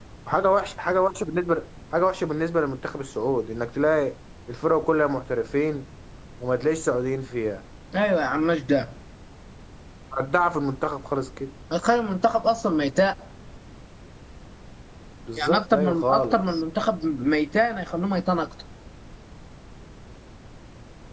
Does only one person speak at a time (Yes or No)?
No